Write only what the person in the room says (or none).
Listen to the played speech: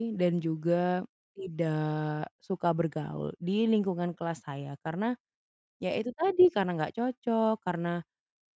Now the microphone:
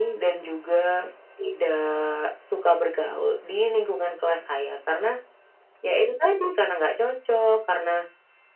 none